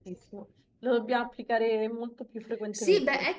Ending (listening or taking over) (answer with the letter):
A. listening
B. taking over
B